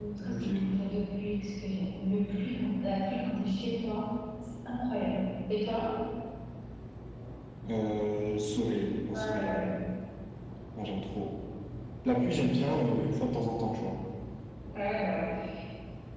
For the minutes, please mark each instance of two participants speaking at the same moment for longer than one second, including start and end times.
none

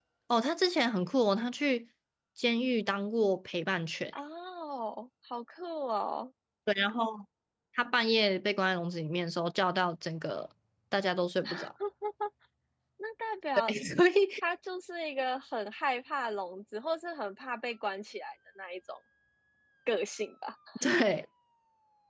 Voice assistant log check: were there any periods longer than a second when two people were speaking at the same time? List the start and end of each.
none

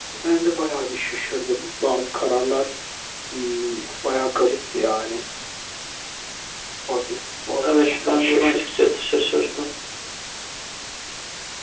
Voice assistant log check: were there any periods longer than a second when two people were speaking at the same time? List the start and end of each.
7.6-8.9

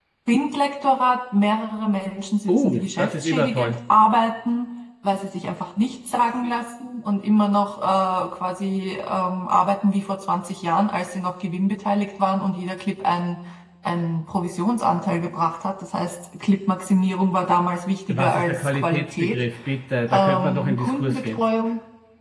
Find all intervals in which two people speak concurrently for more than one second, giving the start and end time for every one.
2.5-3.8, 18.1-19.4, 20.1-21.4

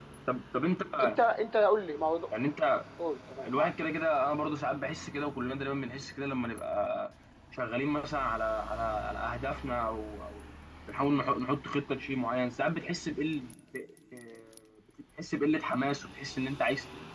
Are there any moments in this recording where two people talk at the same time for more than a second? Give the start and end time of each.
none

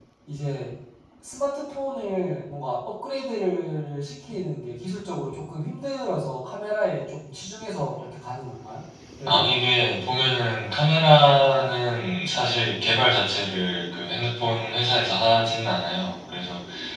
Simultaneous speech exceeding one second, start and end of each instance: none

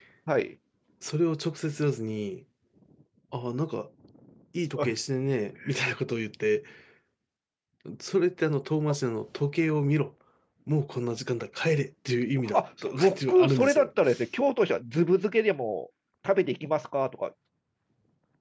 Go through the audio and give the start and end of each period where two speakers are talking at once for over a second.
12.5-13.9

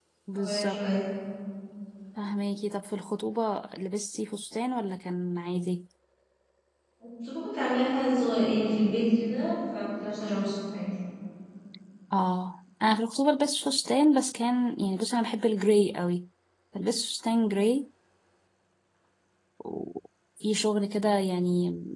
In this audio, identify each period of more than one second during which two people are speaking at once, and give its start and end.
none

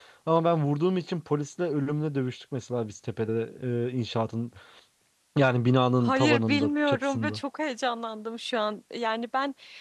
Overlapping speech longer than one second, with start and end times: 6.0-7.4

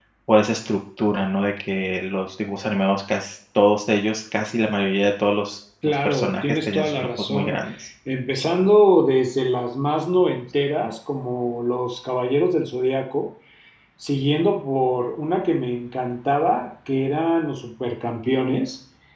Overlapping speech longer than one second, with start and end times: 6.0-7.6

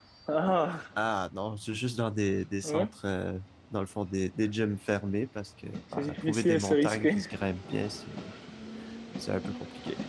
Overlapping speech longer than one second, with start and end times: 6.0-7.2

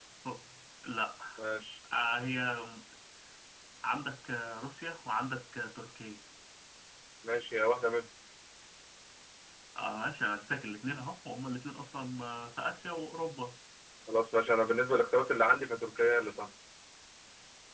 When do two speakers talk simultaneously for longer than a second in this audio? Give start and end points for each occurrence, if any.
none

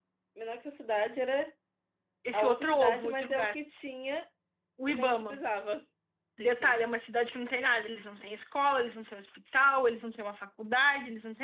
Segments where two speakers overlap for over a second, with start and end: 2.3-3.6

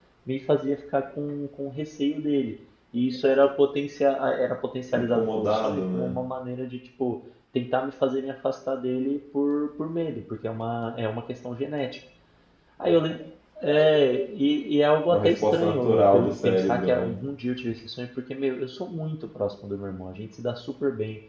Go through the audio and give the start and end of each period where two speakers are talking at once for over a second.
4.9-6.1, 15.1-17.1

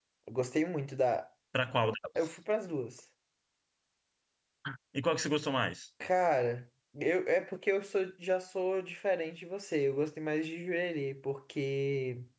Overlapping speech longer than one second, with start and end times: none

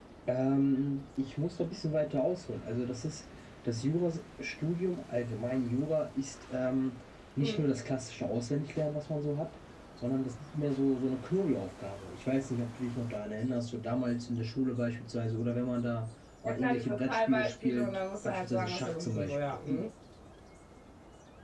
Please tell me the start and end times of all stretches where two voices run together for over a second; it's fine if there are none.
16.4-19.6

